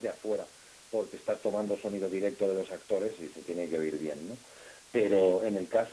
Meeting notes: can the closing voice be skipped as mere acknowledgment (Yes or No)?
Yes